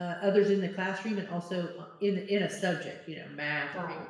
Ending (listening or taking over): taking over